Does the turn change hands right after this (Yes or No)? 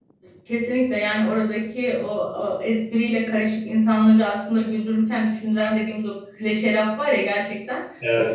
No